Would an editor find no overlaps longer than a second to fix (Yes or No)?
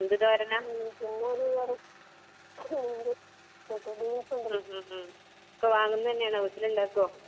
Yes